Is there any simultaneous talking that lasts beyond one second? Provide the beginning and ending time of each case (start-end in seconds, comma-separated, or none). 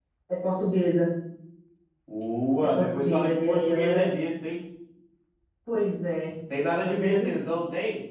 2.6-4.1